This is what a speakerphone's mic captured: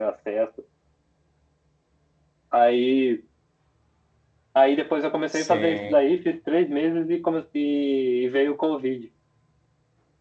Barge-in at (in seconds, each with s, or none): 5.3 s